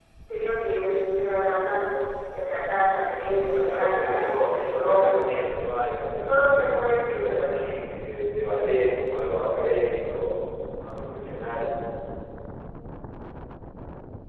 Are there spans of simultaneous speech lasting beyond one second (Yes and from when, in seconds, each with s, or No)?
Yes, from 3.6 s